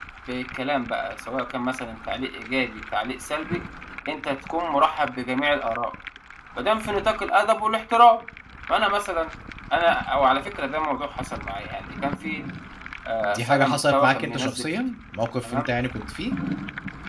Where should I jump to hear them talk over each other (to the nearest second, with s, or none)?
13 s